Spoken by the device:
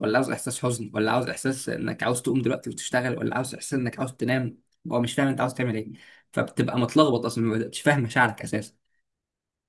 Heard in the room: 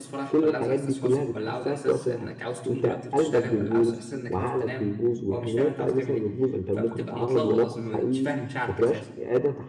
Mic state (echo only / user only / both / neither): both